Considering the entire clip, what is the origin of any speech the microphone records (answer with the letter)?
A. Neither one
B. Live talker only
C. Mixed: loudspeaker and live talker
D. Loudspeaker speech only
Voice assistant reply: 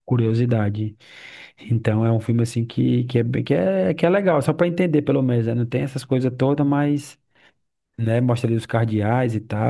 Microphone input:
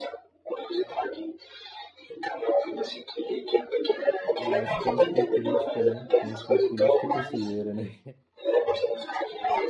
C